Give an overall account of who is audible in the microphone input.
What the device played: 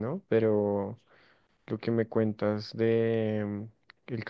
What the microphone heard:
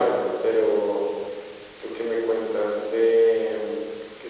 echo only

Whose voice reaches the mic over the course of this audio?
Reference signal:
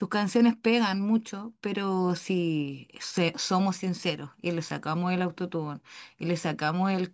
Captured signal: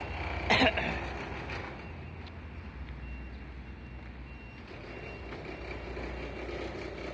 neither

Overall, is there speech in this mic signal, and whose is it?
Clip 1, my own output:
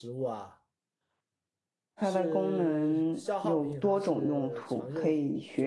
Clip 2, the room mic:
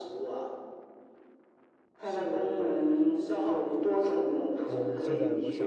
both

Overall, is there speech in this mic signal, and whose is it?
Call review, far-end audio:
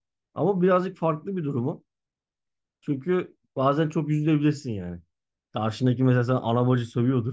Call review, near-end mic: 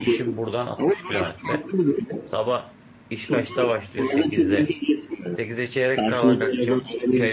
both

